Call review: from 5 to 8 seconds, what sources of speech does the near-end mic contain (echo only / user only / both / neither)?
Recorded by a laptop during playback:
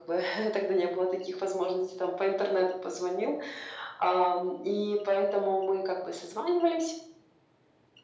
echo only